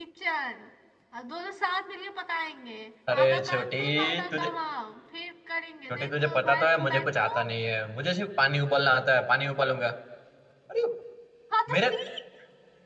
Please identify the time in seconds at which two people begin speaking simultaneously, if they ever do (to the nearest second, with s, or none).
3 s